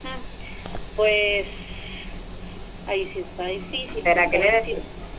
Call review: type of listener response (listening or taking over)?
taking over